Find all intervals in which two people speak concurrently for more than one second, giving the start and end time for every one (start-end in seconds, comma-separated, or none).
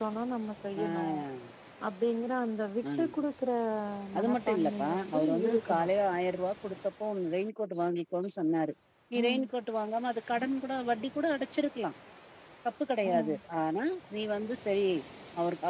4.2-5.9